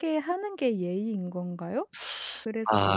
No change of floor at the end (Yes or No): No